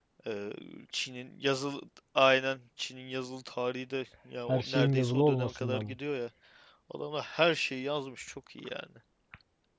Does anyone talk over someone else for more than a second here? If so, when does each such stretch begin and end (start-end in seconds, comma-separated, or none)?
4.5-6.0